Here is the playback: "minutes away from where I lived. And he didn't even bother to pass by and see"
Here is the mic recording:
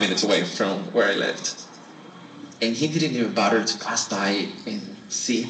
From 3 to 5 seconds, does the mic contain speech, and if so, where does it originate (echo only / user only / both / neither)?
echo only